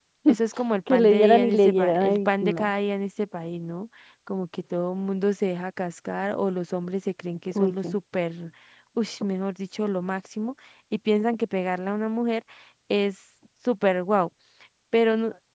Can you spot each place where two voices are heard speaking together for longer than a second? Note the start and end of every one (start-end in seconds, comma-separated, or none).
0.9-2.7